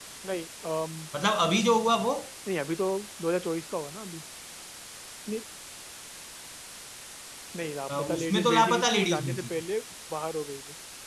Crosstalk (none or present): present